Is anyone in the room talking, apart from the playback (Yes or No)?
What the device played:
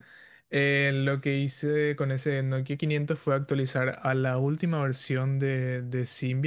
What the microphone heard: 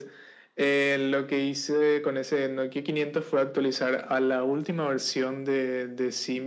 No